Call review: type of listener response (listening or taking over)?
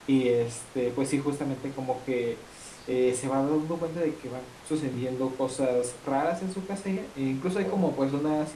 listening